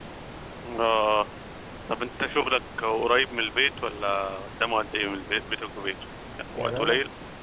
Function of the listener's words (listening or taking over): taking over